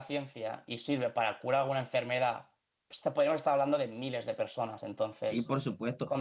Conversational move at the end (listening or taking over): taking over